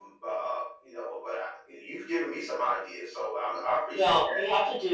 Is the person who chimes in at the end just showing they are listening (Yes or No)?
No